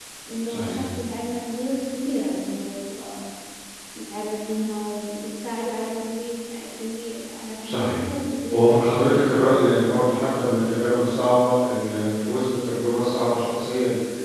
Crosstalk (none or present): present